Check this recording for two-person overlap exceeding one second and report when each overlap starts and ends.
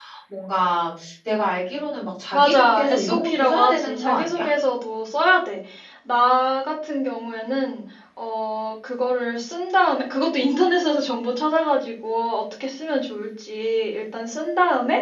2.3-4.5

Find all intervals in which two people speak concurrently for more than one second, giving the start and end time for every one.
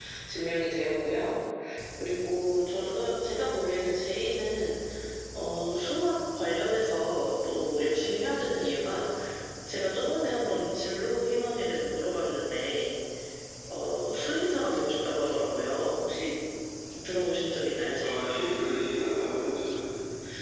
none

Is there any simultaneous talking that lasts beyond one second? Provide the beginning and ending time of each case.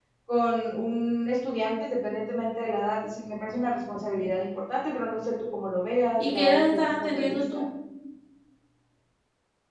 6.2-7.7

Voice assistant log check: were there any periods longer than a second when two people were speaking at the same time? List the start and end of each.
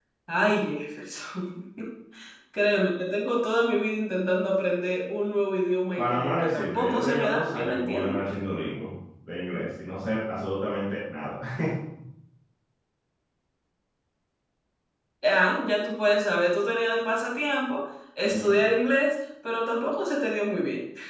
6.0-8.2

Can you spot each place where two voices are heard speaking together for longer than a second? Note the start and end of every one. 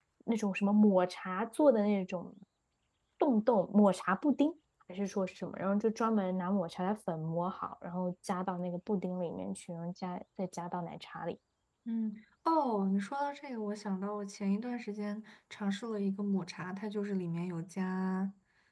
none

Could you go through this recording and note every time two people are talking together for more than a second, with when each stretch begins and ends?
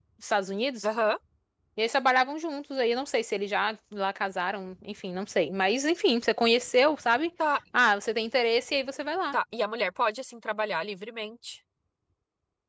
none

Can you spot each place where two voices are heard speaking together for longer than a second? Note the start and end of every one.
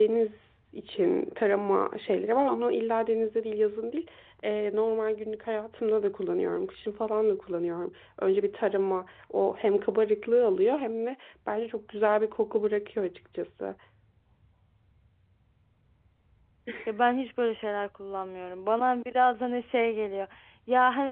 none

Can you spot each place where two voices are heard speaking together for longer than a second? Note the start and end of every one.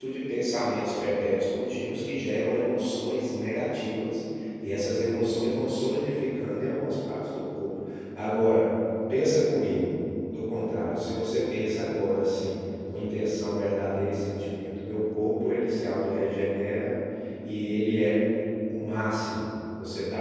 none

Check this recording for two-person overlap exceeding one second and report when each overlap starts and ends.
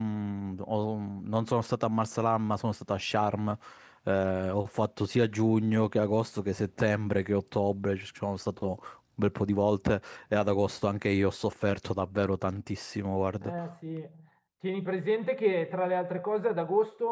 none

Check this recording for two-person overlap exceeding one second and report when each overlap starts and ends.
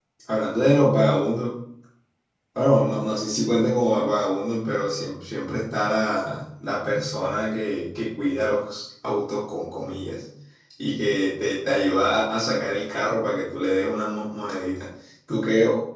none

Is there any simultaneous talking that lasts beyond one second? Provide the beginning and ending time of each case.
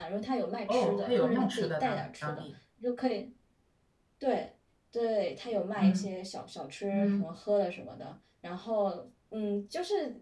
0.7-2.5

